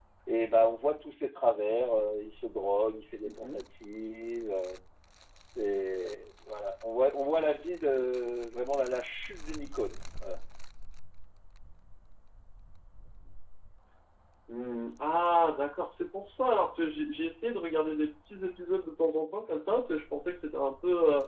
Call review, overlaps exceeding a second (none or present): none